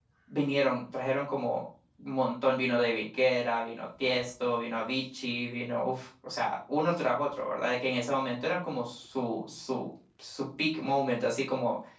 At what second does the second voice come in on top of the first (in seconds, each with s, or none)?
none